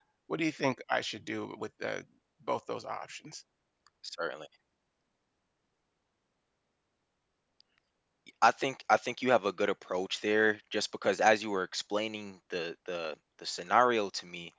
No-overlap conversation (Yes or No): Yes